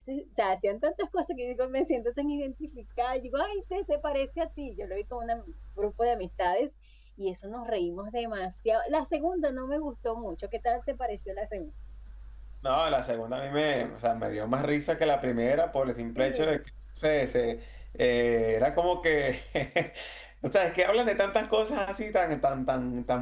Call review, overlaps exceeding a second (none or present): none